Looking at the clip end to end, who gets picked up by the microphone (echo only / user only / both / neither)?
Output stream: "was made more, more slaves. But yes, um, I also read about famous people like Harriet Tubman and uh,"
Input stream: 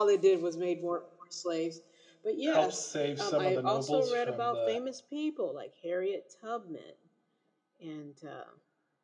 both